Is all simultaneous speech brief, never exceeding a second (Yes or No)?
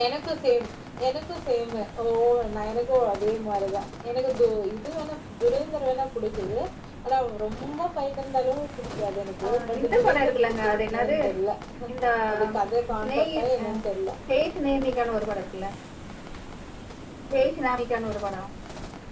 No